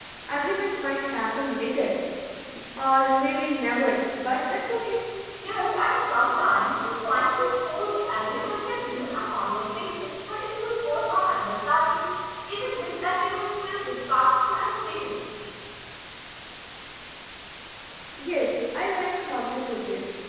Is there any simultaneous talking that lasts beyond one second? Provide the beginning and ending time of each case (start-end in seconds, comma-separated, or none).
none